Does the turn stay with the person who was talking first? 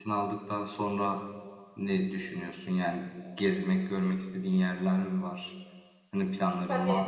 No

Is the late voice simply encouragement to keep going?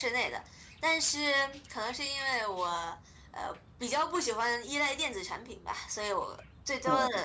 Yes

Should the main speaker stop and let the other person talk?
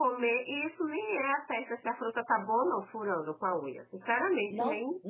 Yes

